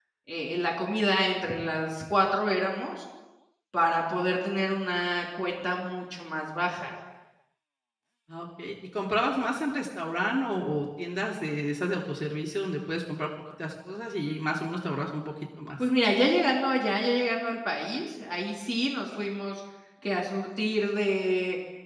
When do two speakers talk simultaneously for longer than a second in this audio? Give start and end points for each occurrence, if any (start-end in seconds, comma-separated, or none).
none